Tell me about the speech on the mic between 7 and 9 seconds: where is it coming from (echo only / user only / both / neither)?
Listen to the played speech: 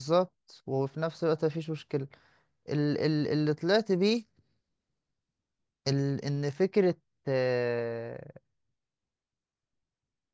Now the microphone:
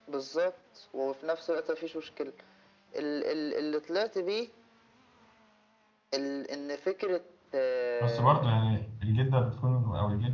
both